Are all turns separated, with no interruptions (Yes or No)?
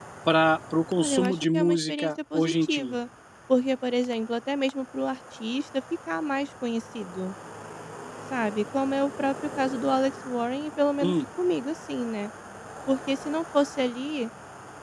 No